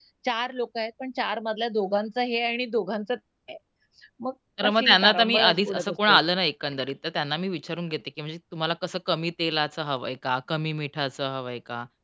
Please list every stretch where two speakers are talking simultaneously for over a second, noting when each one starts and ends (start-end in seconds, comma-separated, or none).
4.6-6.2